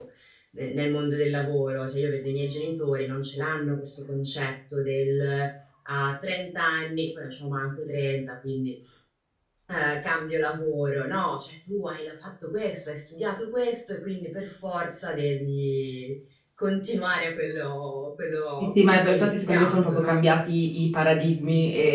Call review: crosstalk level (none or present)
present